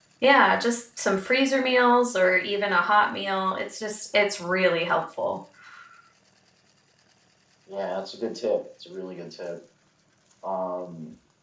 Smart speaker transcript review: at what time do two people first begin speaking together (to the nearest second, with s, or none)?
none